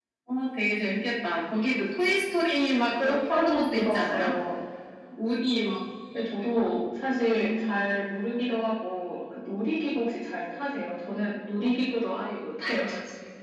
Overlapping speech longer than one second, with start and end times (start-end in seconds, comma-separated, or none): 3.0-4.3